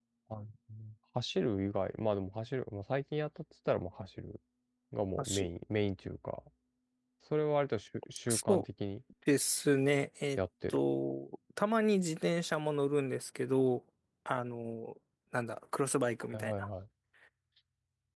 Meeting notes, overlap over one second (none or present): none